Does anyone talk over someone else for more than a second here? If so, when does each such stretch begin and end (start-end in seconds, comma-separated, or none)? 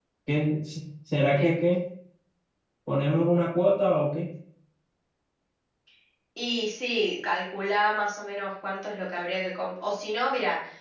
none